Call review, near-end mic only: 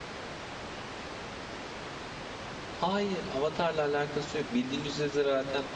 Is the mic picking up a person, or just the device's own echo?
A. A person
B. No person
A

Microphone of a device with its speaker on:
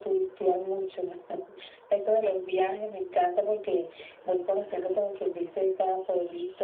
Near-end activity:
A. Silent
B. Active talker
A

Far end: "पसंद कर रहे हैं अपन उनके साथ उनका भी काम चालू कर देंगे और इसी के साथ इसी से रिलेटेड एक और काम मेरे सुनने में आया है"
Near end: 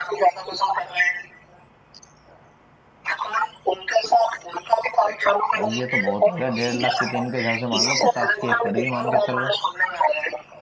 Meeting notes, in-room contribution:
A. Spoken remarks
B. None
A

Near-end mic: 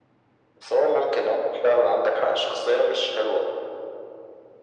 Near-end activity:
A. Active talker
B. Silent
B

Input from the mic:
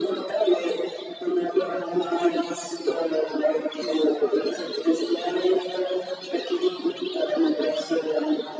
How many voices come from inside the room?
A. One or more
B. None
B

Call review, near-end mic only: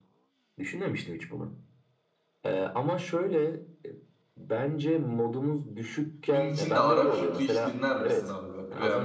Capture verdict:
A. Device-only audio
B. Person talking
B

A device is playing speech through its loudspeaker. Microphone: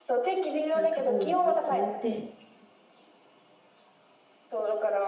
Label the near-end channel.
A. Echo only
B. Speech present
B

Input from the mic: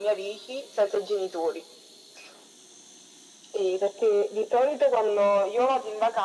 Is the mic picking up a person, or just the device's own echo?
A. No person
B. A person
A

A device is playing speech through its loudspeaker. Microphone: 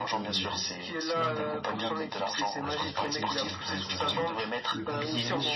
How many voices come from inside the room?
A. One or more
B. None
A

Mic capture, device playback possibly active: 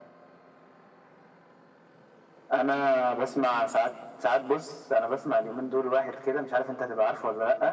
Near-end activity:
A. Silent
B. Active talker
A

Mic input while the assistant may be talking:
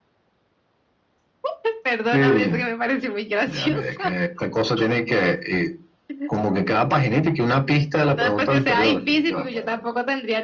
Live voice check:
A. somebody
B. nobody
B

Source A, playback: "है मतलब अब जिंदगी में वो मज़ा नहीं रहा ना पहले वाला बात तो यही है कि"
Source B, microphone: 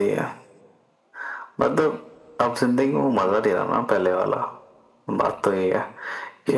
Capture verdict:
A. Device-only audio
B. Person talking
A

